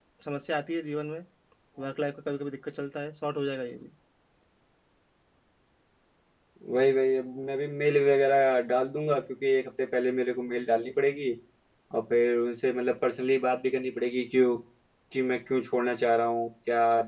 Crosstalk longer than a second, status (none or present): none